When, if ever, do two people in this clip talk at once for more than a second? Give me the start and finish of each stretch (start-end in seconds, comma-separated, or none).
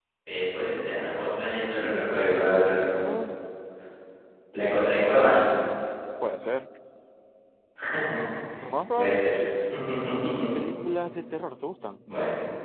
1.8-3.0